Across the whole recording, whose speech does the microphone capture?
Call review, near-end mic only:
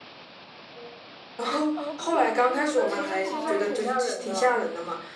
both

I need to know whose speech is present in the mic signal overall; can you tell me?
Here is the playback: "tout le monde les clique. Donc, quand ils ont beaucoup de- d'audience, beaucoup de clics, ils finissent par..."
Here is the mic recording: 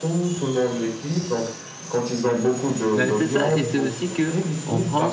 both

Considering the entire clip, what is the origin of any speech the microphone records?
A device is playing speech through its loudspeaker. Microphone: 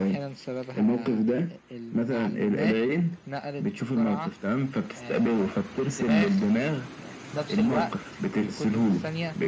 echo only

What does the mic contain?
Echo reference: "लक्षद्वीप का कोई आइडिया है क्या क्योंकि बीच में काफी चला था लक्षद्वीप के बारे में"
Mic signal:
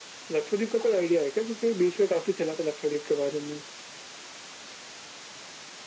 echo only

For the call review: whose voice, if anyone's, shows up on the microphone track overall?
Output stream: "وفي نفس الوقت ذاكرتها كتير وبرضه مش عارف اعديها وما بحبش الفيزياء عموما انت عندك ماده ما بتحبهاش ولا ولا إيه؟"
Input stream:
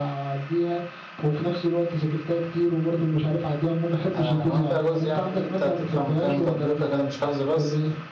both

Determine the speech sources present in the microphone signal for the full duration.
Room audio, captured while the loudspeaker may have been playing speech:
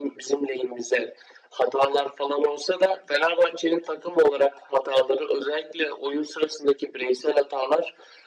echo only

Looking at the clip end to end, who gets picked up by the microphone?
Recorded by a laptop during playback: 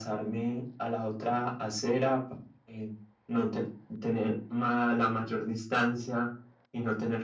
echo only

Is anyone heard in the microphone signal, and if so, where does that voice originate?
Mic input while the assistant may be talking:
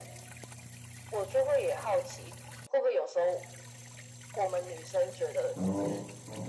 both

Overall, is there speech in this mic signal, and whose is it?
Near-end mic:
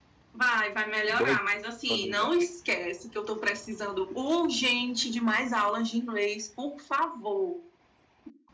both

